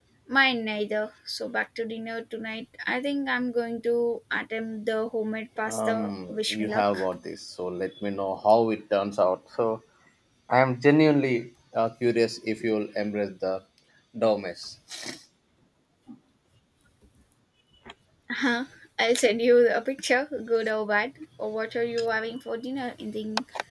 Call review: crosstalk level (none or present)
present